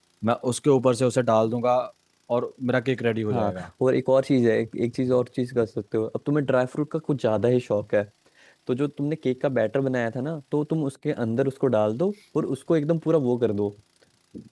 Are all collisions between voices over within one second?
Yes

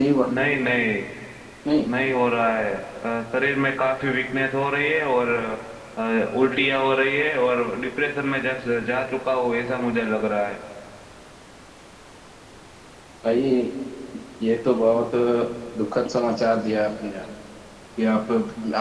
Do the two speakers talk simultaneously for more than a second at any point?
No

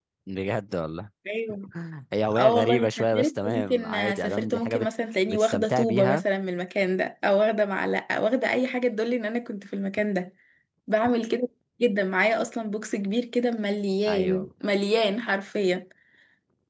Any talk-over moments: Yes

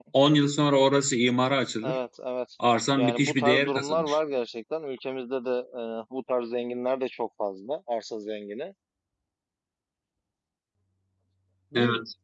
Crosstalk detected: Yes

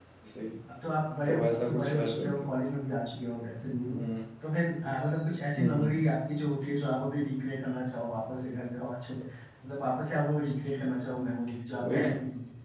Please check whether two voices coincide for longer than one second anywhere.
Yes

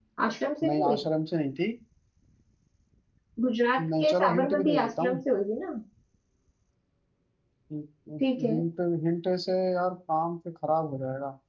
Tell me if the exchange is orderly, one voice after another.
No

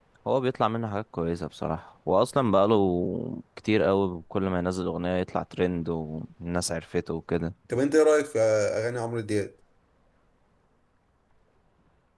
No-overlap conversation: Yes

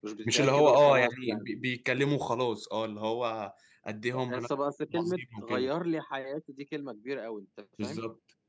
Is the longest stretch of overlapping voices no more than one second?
No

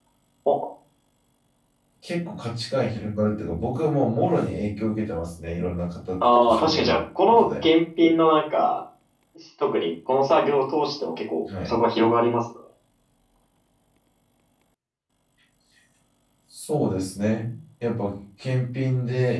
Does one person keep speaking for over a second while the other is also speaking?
Yes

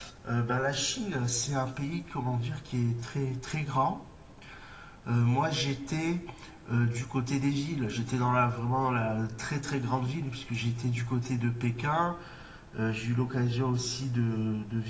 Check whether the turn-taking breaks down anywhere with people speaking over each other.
No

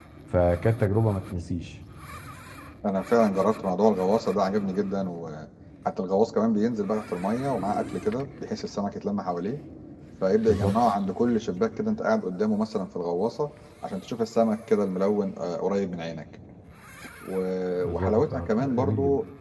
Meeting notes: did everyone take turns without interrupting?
No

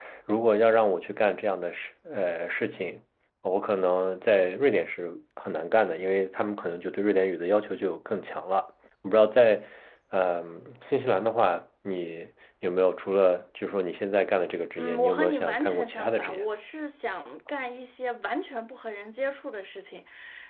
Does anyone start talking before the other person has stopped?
Yes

